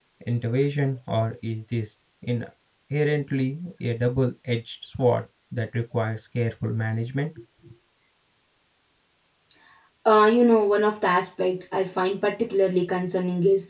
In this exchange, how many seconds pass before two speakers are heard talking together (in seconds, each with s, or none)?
none